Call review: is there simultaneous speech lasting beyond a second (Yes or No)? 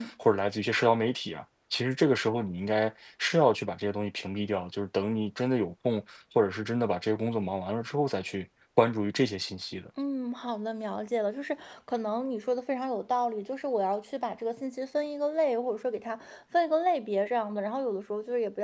No